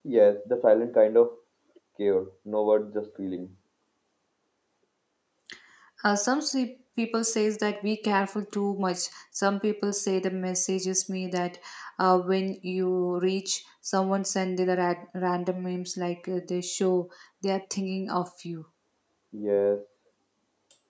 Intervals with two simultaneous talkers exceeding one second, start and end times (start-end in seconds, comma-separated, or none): none